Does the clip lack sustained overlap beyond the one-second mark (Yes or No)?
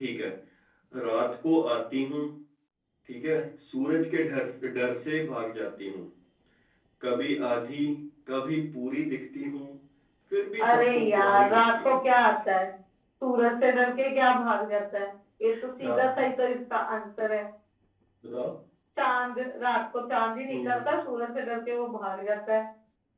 No